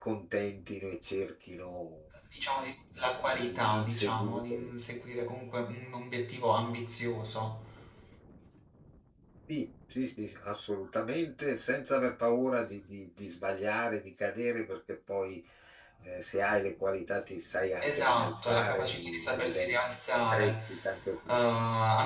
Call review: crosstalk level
present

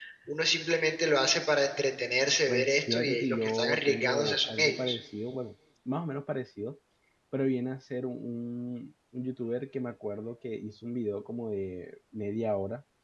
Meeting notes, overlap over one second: present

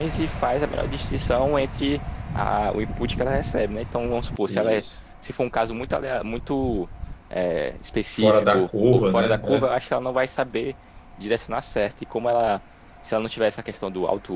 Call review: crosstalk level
present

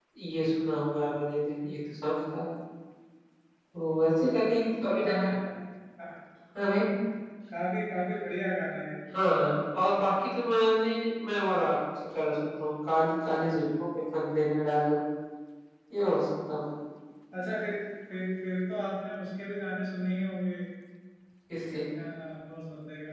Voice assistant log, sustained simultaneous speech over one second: none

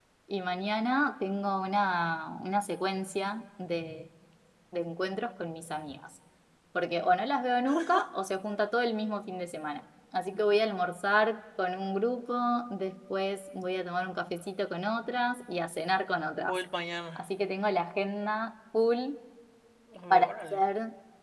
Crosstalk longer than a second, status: none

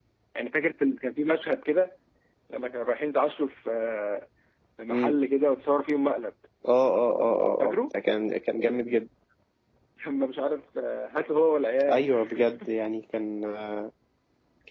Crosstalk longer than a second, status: none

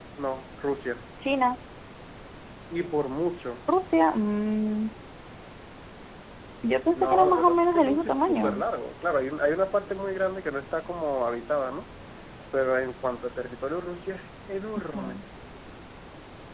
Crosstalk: present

